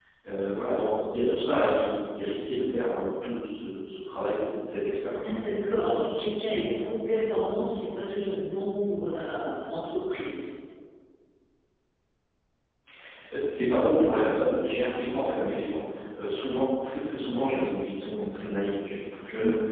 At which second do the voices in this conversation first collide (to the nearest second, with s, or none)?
none